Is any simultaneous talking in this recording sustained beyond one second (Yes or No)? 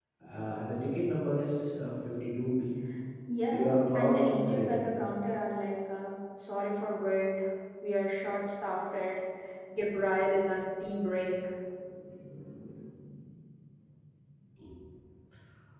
Yes